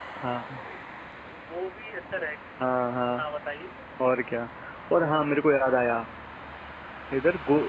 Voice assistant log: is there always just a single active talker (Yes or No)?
Yes